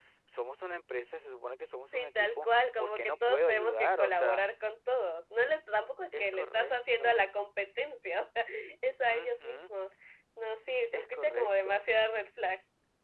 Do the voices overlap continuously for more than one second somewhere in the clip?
Yes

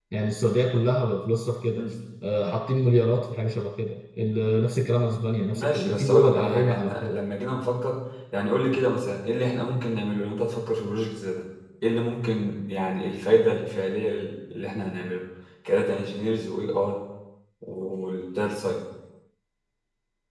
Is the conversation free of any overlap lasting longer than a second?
No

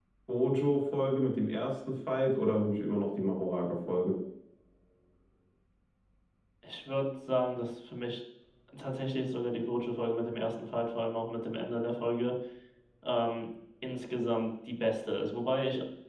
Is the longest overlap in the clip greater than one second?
No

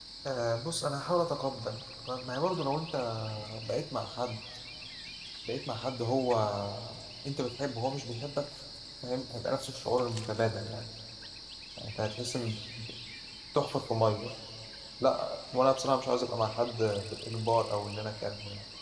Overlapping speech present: No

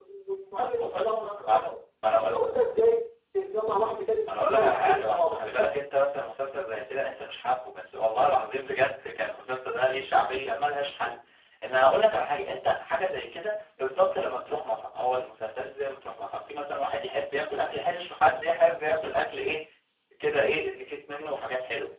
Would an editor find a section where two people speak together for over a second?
Yes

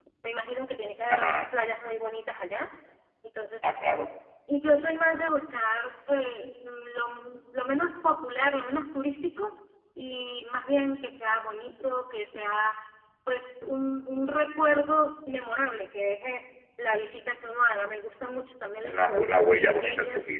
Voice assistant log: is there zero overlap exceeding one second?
No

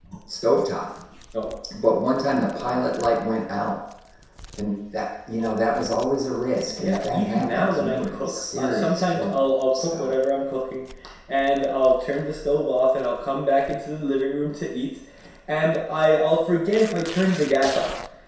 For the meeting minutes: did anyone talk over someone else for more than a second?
Yes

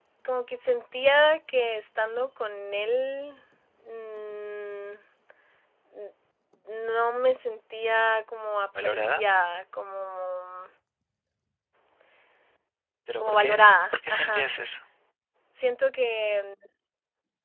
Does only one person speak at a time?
No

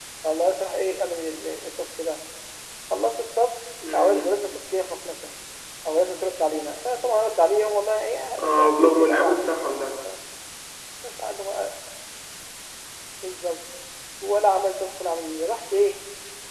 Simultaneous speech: Yes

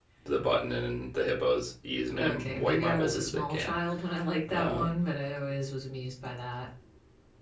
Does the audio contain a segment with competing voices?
Yes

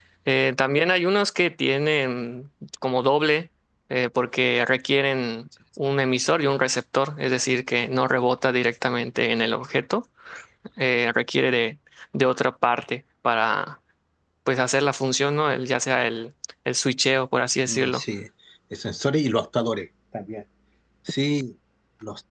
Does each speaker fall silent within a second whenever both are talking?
Yes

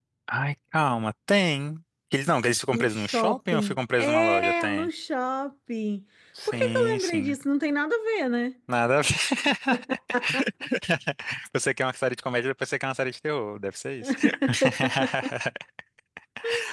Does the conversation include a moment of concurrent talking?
Yes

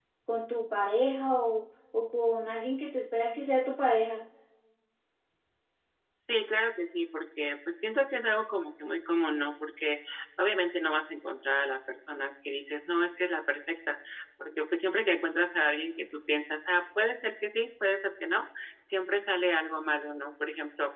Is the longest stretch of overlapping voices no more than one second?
Yes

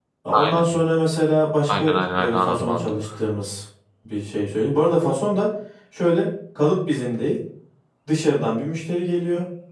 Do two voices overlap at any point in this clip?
Yes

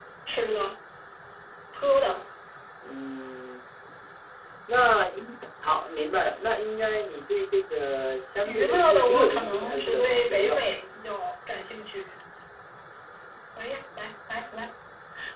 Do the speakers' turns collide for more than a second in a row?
Yes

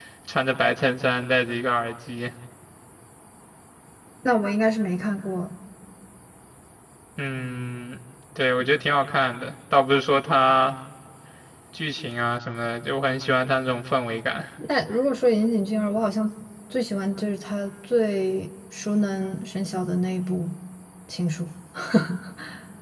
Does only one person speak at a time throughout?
Yes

